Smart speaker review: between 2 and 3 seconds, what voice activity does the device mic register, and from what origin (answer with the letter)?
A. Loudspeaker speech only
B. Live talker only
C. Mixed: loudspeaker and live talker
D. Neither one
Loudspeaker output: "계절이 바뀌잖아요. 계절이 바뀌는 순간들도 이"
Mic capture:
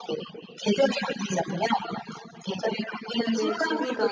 A